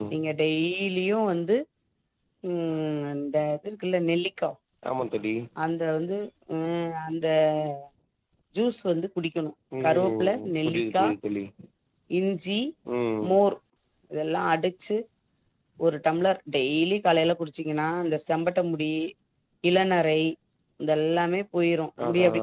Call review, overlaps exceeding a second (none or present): present